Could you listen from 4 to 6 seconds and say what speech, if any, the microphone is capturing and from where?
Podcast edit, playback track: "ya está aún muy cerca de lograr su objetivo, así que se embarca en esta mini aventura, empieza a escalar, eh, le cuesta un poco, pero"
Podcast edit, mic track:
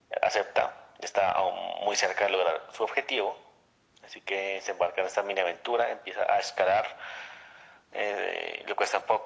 echo only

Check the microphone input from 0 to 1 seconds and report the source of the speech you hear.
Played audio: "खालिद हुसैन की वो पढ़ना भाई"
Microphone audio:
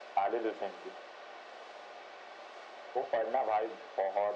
echo only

